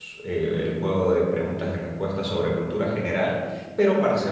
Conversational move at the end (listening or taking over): listening